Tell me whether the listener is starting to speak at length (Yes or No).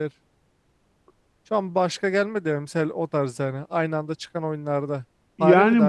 Yes